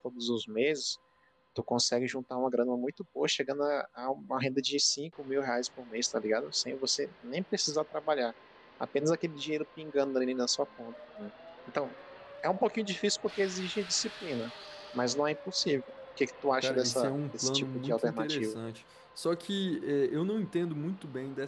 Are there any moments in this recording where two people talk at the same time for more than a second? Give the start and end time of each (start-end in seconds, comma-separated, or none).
16.6-18.6